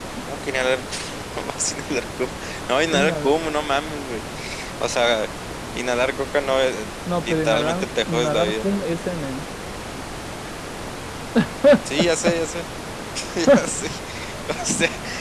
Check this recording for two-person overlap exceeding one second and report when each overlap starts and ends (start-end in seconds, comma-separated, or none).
7.2-8.6